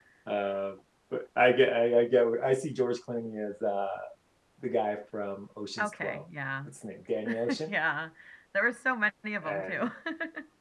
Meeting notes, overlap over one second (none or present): none